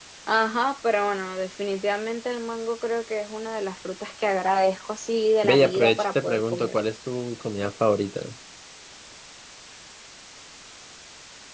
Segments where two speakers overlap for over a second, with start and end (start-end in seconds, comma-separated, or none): 5.4-6.7